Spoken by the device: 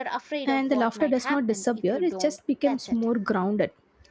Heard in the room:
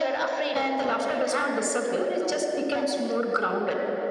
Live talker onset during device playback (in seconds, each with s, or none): none